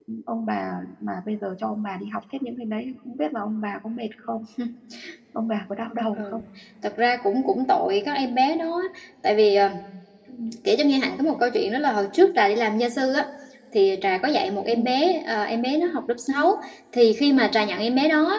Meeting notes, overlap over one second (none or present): none